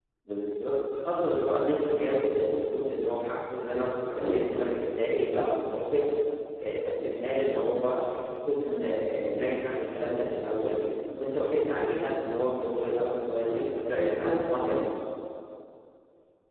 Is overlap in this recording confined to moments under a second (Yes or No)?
No